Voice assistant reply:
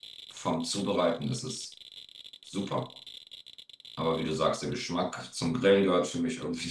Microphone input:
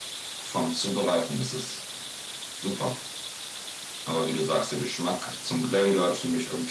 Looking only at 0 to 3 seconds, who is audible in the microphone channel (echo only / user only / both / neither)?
echo only